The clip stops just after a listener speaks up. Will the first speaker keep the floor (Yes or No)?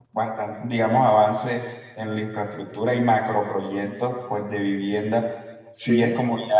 Yes